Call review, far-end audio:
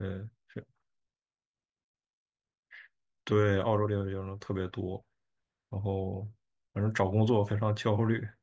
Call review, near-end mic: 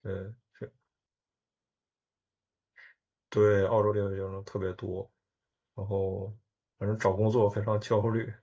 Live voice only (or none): none